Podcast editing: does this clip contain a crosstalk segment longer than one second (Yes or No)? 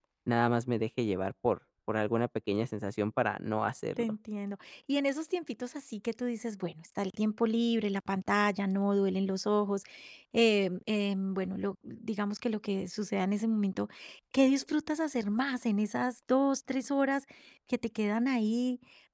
No